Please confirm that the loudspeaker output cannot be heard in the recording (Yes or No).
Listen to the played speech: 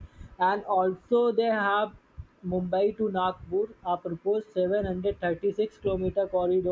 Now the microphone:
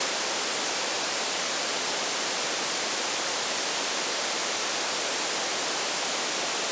Yes